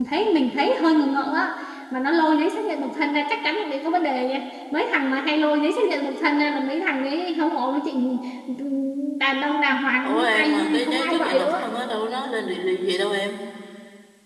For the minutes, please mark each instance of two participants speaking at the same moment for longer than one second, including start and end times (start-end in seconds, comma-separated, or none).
10.0-11.7